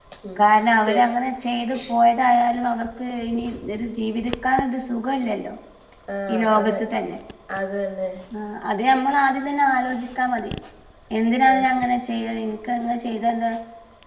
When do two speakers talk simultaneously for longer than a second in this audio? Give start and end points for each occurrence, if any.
none

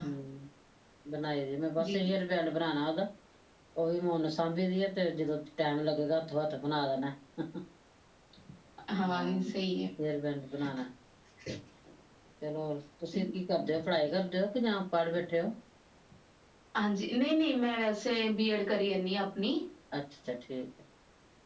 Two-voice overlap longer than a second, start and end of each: none

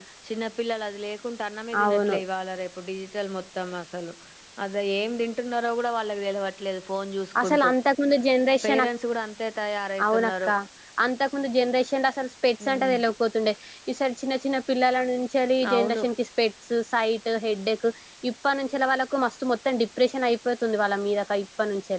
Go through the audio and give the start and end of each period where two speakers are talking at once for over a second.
none

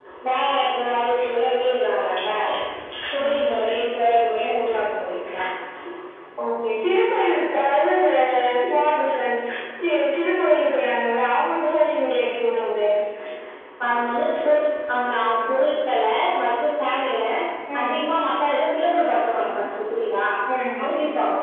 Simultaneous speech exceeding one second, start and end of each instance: none

